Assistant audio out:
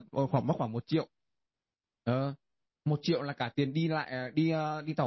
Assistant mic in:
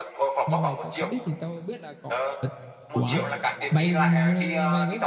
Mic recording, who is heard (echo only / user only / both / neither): both